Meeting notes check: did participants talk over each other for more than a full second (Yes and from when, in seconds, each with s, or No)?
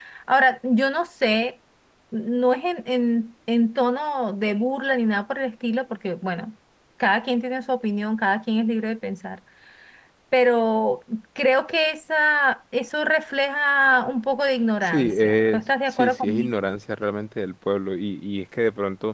Yes, from 14.8 s